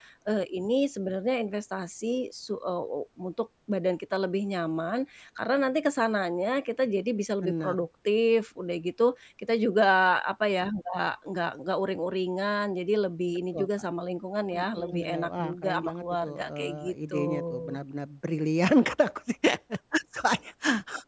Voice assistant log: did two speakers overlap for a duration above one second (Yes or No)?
Yes